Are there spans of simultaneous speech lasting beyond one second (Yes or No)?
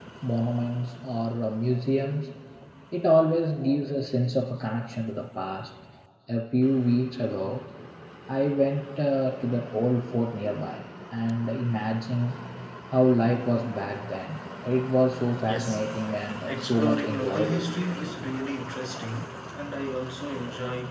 Yes